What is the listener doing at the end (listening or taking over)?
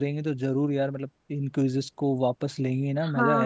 taking over